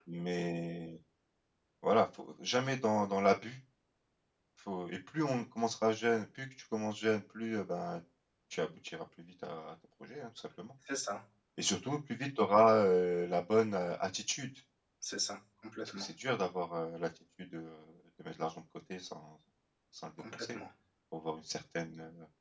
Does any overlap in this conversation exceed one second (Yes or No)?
No